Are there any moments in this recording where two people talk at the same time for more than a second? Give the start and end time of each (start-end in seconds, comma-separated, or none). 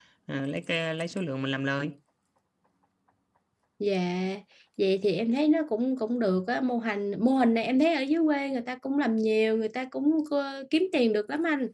none